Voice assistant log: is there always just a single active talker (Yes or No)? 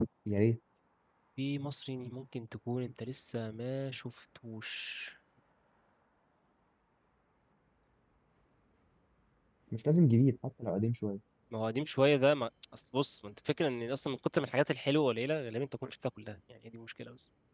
Yes